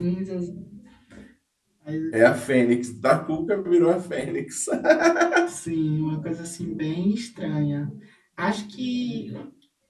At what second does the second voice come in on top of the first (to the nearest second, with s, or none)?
none